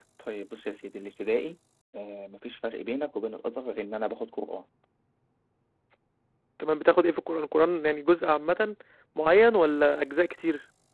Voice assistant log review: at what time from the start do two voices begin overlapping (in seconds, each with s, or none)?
none